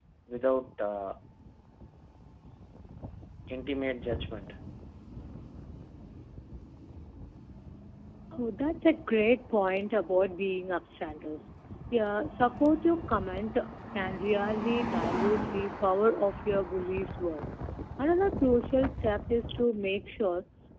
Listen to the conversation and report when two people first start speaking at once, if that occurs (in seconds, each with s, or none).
none